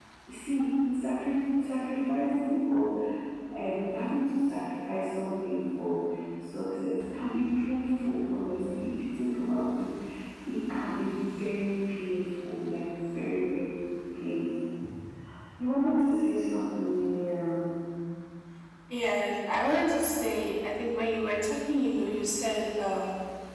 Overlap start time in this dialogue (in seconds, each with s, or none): none